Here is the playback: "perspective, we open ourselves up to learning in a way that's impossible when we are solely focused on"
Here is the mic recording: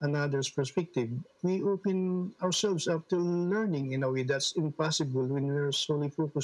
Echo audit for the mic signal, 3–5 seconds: echo only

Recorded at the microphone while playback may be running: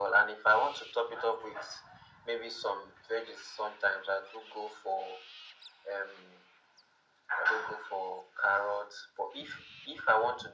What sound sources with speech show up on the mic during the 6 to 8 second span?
echo only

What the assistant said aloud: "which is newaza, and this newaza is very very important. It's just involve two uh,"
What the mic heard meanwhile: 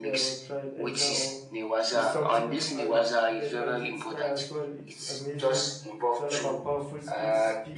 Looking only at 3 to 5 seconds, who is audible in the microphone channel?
both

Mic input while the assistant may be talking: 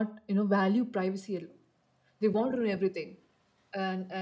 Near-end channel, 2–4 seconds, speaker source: echo only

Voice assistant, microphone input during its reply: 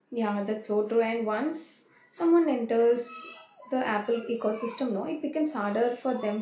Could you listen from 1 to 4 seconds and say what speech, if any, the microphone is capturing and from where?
user only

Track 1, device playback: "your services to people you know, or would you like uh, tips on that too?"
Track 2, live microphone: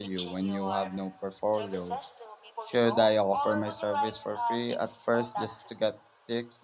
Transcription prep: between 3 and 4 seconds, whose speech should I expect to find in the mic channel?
both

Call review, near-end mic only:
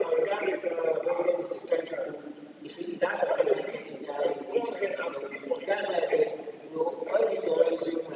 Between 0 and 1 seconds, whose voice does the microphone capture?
echo only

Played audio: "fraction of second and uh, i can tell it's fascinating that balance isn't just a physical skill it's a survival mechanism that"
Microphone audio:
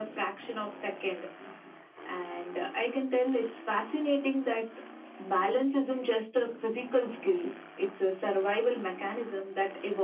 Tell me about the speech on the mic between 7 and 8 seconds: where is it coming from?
echo only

